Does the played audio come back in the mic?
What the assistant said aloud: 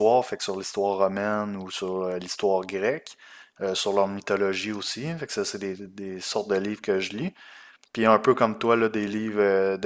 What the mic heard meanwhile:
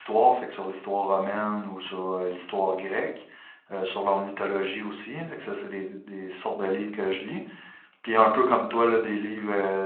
Yes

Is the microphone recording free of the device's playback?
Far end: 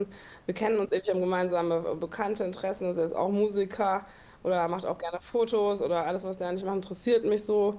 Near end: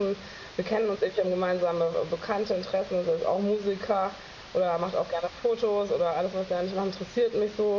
No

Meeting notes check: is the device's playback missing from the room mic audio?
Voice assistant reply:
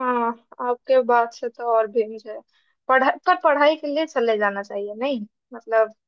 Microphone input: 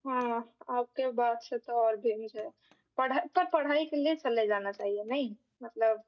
No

